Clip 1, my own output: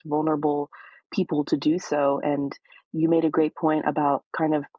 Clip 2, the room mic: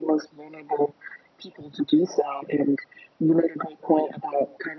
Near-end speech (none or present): none